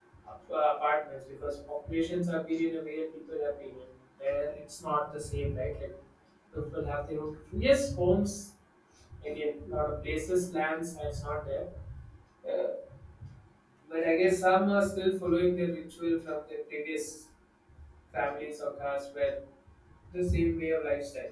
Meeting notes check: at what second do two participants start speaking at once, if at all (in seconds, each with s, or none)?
none